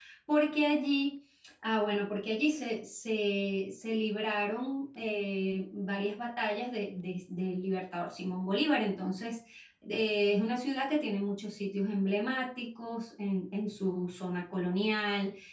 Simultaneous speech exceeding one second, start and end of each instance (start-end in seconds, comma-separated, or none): none